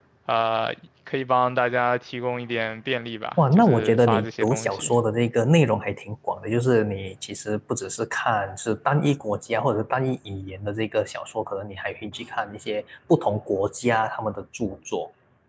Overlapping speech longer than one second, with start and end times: 3.5-4.9

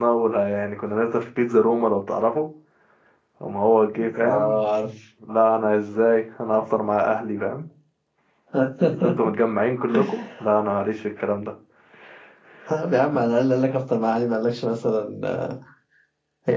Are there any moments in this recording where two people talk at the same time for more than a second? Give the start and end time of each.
none

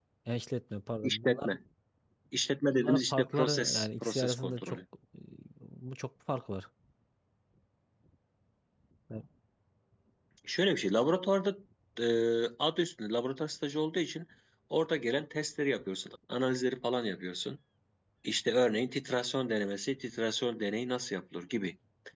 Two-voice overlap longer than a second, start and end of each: 2.7-4.8

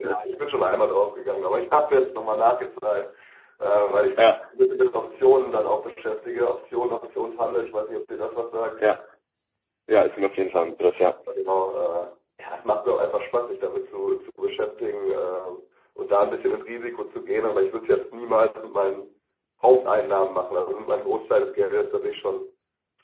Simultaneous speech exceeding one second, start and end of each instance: none

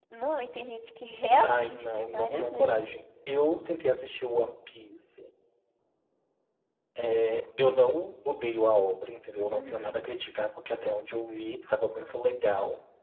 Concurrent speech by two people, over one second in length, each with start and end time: 1.4-3.0

